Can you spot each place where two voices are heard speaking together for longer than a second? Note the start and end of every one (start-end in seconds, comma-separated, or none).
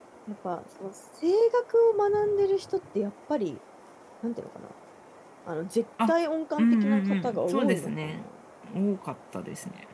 6.6-8.2